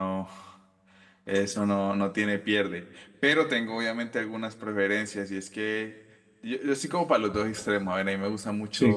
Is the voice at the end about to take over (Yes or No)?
No